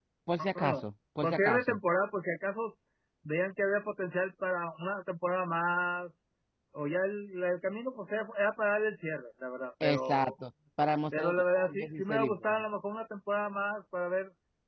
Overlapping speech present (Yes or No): Yes